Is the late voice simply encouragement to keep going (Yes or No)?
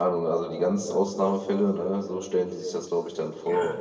No